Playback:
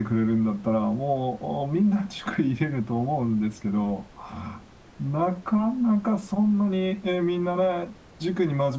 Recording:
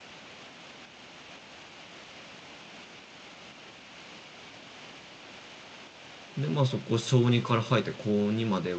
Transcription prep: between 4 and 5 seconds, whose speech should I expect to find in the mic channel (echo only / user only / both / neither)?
neither